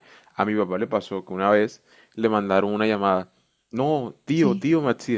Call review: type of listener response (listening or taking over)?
listening